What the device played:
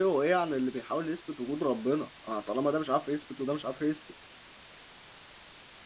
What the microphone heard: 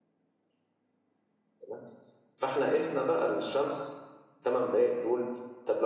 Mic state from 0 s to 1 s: neither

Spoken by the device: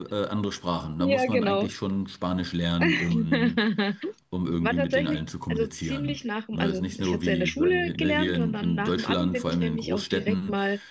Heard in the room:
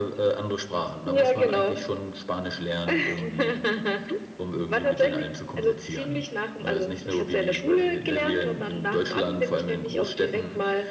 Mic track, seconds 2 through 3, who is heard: echo only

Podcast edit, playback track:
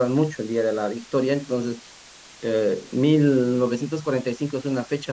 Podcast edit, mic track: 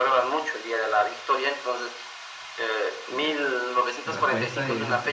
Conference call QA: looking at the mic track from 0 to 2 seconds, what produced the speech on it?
echo only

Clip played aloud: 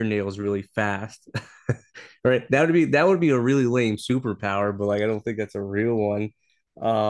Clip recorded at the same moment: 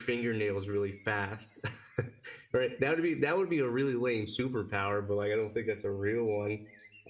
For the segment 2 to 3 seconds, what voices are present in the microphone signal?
echo only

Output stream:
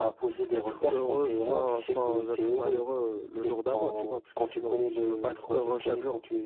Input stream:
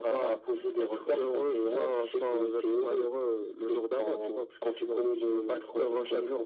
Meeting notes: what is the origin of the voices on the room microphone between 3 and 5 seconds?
echo only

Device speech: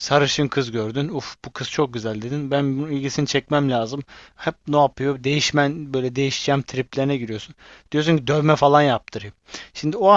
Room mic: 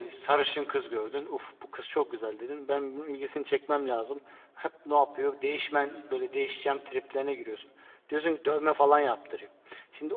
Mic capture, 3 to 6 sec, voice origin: echo only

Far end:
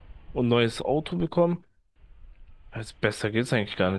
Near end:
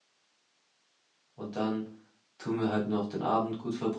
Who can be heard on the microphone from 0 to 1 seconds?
neither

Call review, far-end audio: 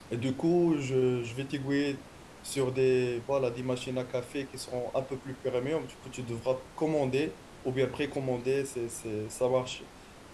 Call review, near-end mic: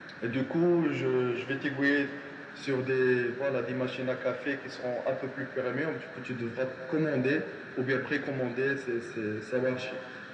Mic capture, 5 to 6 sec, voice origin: echo only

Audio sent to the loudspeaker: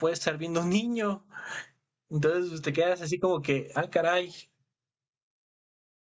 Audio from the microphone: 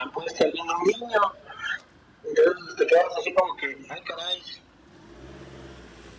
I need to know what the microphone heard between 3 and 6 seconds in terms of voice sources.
echo only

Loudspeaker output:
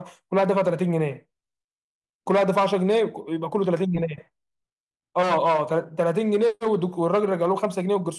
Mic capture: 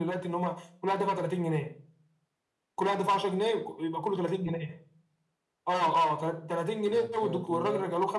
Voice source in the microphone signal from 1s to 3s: echo only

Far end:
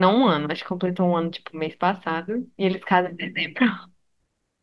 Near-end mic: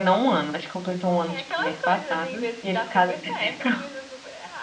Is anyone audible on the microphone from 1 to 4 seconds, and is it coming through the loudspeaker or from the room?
both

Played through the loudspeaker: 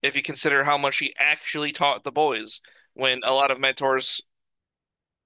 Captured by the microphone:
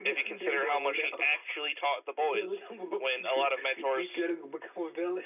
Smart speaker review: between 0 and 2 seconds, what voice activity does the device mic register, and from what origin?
both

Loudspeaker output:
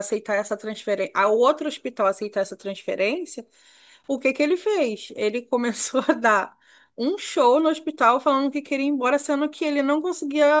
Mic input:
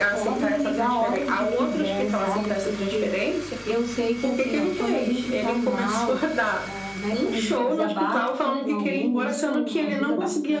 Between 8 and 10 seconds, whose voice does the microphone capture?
both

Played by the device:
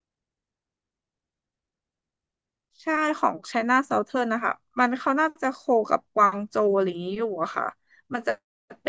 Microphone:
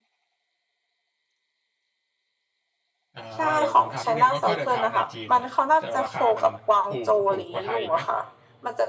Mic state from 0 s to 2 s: neither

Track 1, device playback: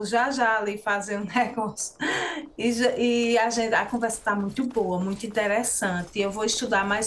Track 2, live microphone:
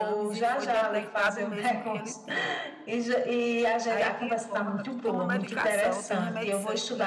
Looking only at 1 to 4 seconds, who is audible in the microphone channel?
both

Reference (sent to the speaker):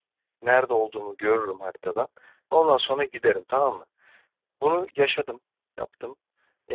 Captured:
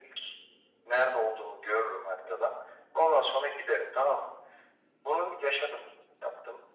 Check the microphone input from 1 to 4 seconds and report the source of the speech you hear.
echo only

